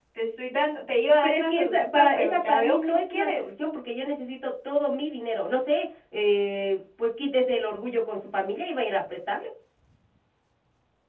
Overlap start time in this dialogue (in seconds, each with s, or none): 1.2 s